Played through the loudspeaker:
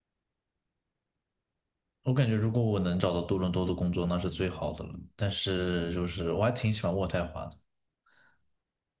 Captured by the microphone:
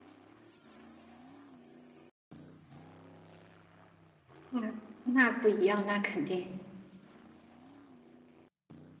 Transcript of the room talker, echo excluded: 嗯，那不一样，那肯定。

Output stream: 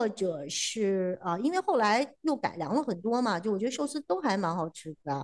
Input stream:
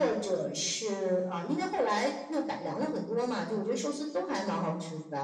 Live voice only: none

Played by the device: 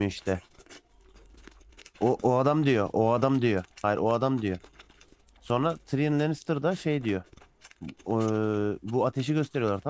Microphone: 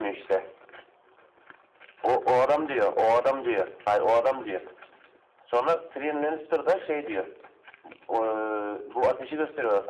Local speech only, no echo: none

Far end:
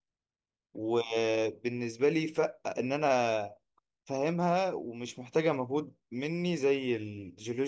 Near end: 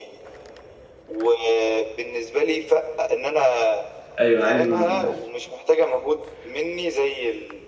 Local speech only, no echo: ايوه انا عايزه من آه،

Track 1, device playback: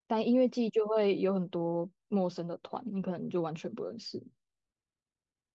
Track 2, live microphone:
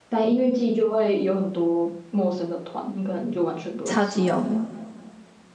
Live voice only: 超级有名。

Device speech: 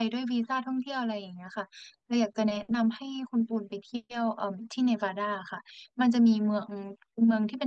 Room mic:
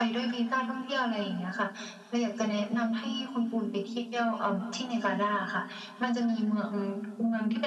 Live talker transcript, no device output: none

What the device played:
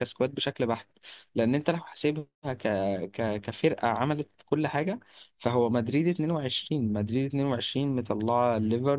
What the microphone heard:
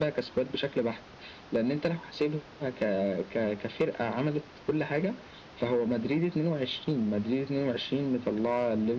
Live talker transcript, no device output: none

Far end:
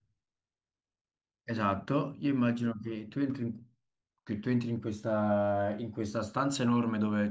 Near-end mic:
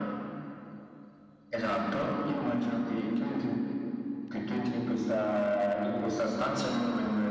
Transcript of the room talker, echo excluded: none

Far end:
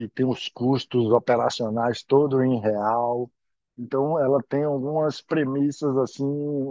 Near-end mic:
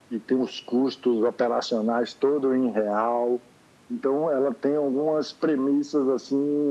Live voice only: none

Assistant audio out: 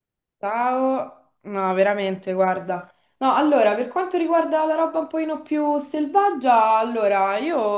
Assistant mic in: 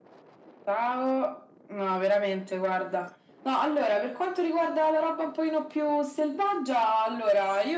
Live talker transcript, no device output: none

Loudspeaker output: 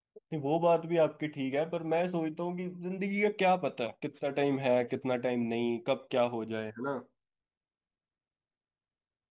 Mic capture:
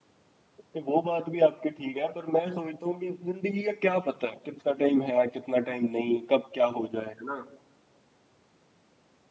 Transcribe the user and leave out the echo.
none

